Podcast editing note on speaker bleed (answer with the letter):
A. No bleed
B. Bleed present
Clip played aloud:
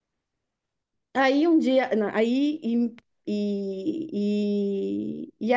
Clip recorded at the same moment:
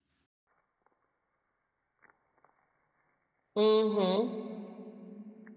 A